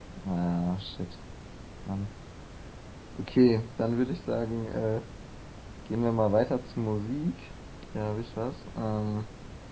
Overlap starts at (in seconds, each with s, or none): none